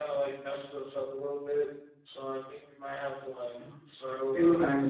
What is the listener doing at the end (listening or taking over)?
taking over